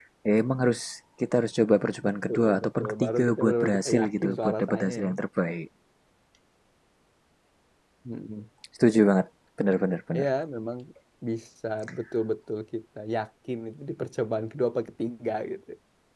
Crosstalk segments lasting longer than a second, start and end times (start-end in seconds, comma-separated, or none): 2.0-5.1